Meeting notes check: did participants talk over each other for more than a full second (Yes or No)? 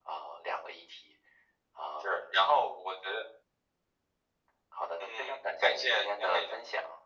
Yes